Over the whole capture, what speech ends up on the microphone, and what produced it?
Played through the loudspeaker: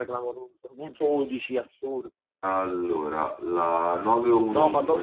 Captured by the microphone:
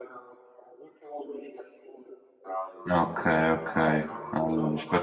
both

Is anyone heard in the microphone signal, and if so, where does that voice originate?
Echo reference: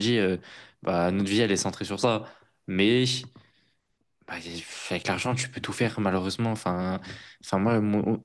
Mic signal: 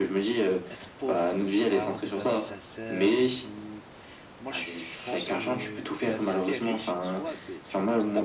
both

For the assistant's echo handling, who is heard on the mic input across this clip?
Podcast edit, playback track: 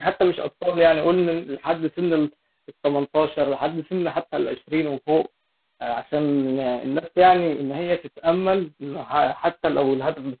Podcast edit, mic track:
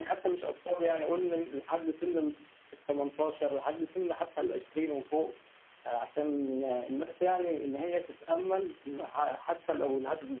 echo only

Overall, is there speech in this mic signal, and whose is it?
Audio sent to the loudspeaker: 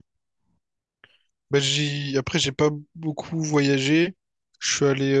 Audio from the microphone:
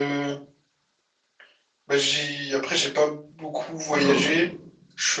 both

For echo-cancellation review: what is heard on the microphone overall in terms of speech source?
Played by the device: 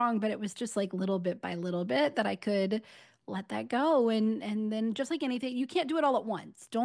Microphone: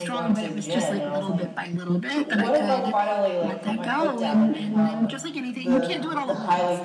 both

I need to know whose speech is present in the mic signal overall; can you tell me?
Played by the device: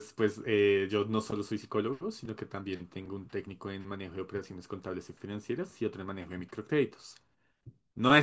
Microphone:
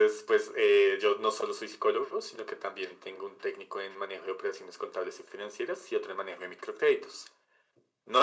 echo only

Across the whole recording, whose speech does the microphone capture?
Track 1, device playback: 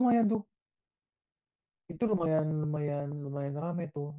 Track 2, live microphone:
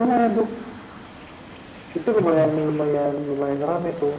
both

